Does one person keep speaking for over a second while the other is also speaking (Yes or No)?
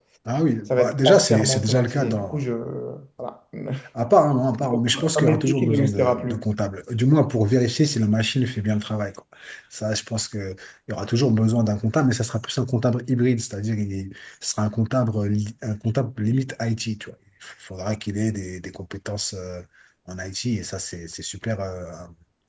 Yes